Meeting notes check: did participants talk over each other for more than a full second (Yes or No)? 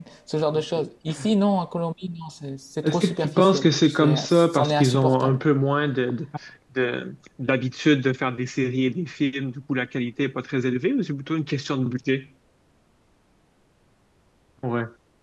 Yes